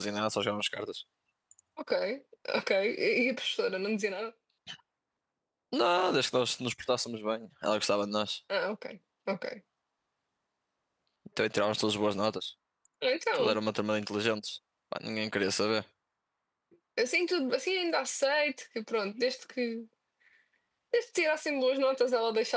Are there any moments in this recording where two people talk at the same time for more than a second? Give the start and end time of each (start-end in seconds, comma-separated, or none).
none